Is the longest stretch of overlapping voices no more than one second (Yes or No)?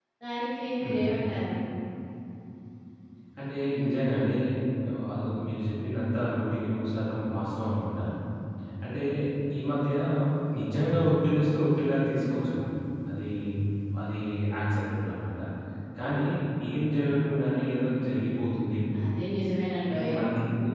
Yes